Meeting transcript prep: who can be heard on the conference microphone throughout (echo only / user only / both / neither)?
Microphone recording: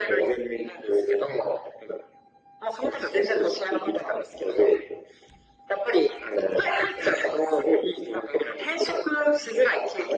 echo only